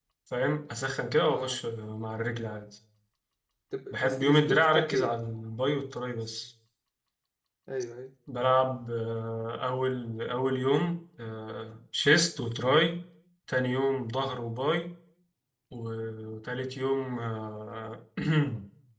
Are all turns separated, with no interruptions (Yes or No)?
No